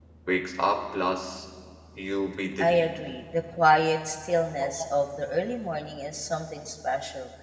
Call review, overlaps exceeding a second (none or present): none